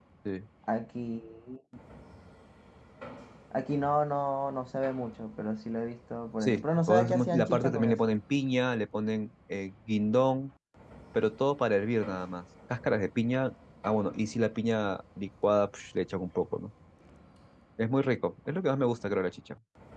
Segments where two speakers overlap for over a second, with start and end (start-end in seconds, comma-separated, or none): 6.4-8.2